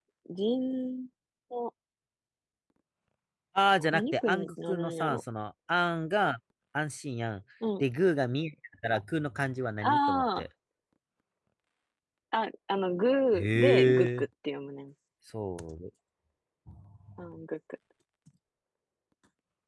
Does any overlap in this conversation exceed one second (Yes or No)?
Yes